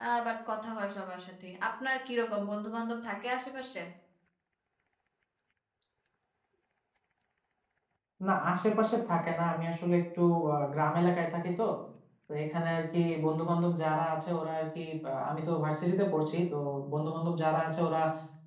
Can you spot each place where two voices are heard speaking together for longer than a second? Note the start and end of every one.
none

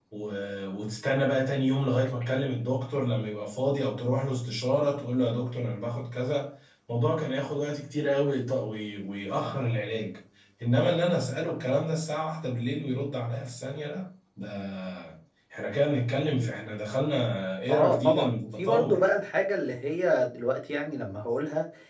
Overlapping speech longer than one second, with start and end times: 17.7-19.0

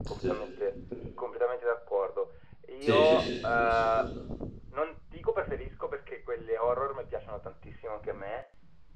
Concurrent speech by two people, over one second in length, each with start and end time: 2.8-4.1

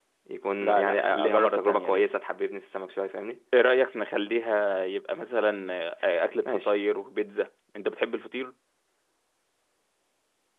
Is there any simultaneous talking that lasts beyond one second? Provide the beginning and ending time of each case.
0.6-2.1

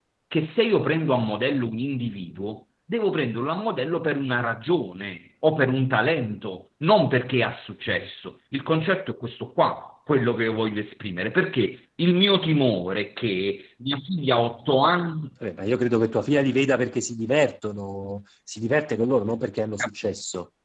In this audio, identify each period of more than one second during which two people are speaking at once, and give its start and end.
none

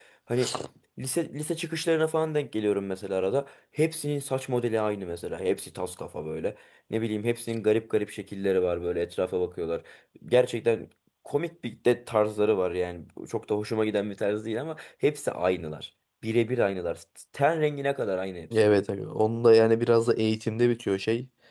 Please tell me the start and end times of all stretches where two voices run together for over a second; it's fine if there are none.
none

